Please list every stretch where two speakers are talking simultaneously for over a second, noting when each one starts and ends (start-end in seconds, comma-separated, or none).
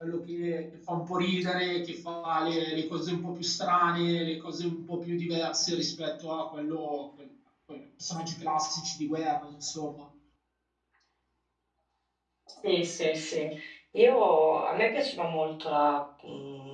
none